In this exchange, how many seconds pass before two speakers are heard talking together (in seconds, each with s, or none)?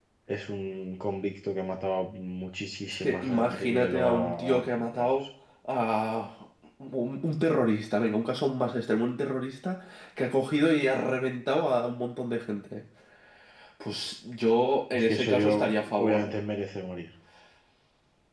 3.0 s